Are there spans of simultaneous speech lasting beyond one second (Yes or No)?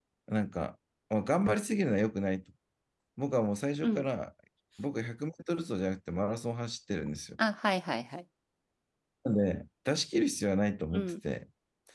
No